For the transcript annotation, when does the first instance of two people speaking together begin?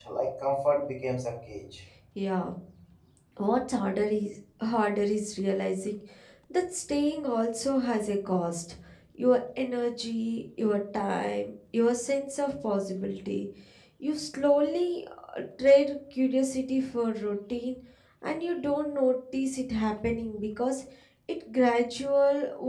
none

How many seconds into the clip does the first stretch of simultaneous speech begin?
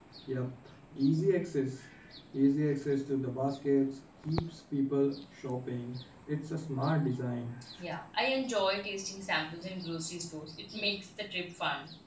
none

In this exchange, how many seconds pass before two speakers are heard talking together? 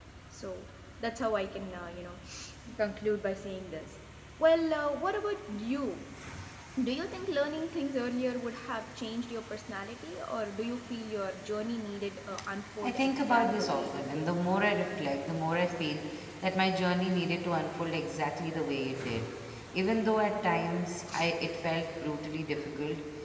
12.8 s

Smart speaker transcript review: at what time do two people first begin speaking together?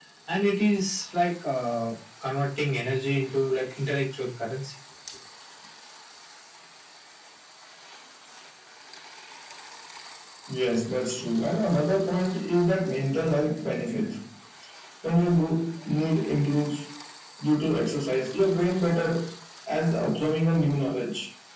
none

